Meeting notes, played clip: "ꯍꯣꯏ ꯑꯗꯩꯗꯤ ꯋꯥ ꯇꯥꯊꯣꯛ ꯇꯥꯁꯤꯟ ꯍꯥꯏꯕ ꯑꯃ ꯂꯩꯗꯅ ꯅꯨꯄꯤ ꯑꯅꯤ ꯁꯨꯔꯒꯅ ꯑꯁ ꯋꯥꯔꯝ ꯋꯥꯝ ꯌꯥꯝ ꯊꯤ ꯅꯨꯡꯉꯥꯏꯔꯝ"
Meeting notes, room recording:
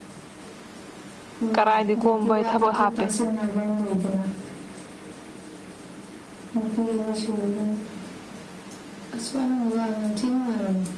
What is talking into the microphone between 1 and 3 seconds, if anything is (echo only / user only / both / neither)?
both